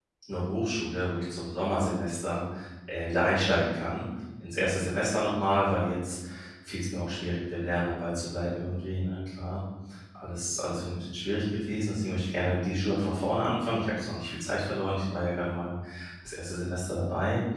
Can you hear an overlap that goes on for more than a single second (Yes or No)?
No